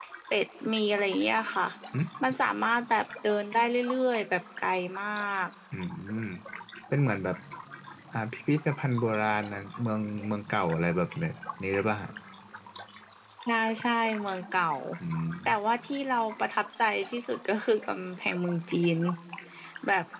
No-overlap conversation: Yes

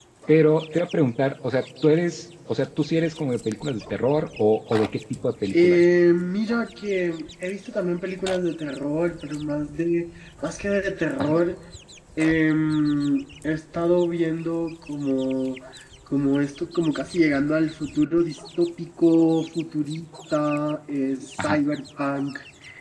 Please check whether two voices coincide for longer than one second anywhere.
No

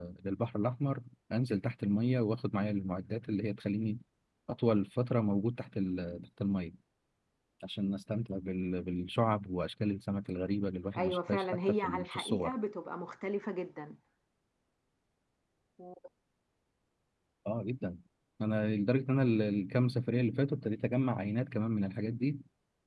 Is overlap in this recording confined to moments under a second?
No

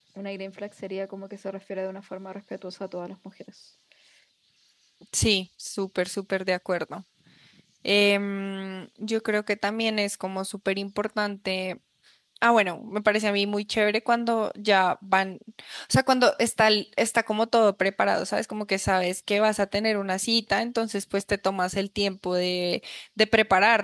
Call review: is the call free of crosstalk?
Yes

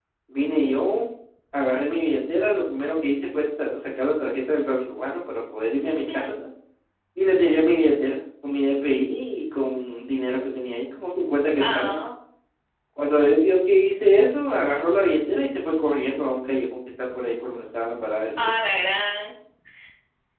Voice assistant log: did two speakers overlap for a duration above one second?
No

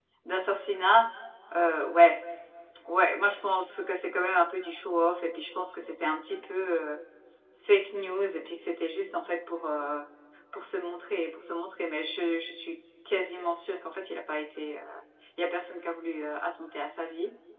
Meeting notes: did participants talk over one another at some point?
No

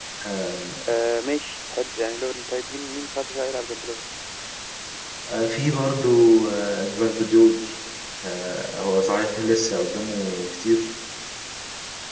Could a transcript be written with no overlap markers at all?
Yes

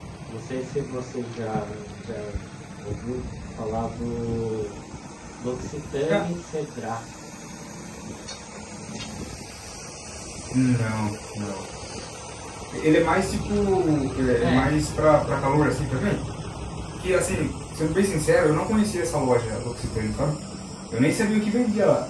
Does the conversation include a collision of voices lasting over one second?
No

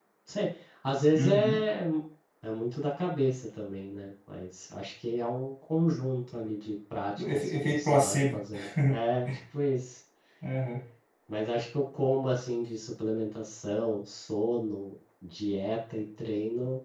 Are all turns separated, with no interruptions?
No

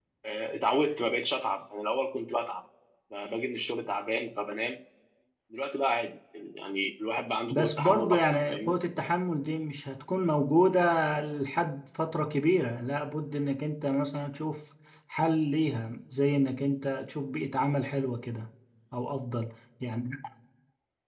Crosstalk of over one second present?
Yes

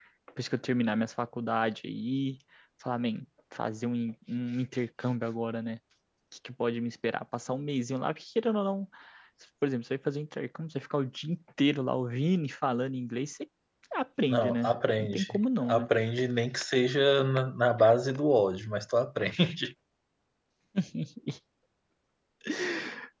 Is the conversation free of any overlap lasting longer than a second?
No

